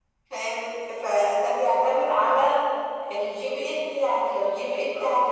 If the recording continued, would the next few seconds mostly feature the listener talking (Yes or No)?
No